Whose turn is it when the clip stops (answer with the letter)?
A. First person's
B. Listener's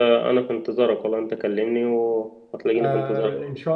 B